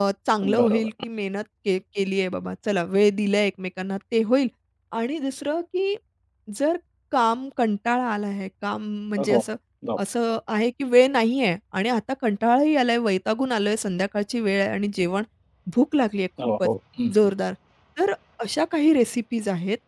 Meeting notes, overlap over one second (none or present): none